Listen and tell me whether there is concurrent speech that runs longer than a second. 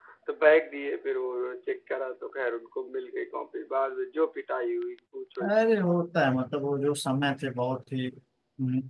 No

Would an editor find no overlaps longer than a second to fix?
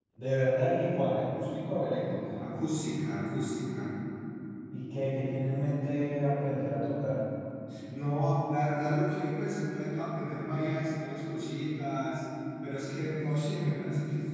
Yes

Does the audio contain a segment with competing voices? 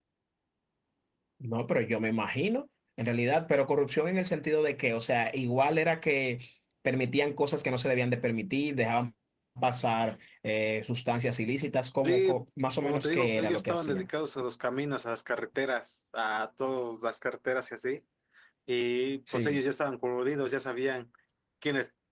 Yes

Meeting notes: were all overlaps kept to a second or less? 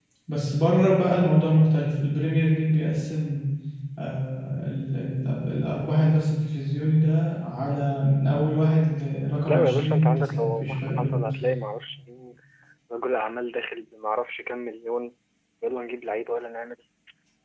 No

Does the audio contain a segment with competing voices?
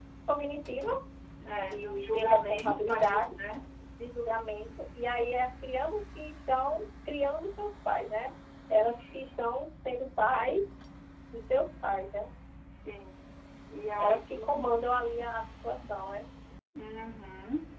Yes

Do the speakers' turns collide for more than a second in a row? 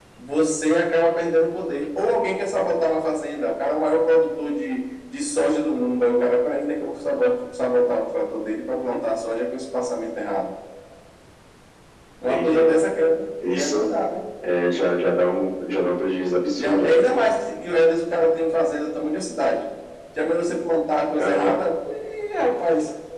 No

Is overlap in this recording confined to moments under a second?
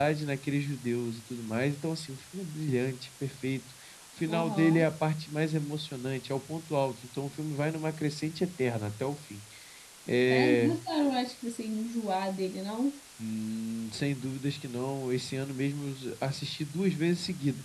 Yes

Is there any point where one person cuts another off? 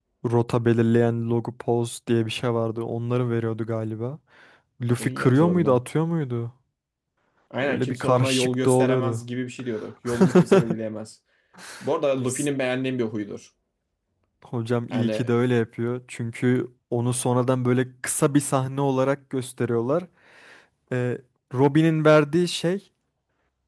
Yes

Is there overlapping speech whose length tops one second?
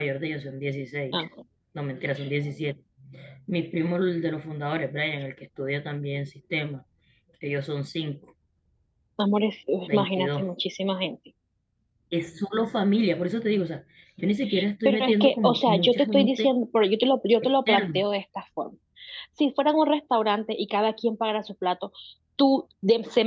Yes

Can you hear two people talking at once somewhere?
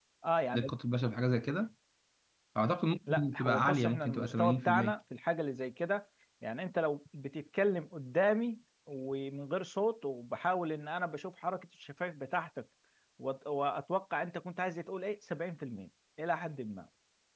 Yes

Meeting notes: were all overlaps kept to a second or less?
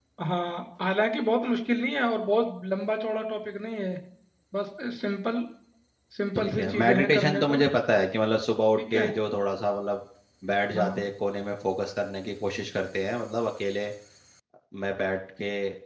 No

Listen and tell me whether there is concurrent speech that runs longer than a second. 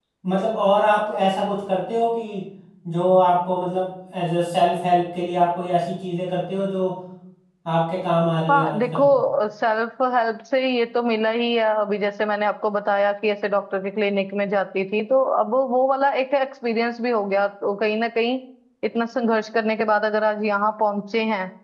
No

